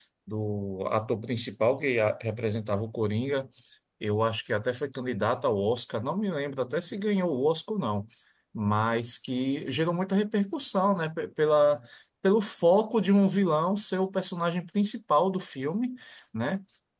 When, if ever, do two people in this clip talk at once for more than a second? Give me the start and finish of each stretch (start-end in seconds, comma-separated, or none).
none